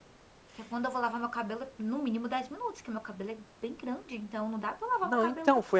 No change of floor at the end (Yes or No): No